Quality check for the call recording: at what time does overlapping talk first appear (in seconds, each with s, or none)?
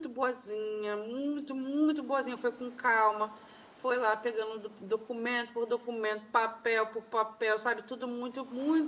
none